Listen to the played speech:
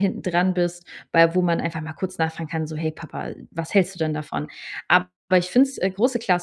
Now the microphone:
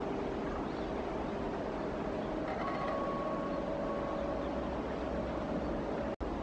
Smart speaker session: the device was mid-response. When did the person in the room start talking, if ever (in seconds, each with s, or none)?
none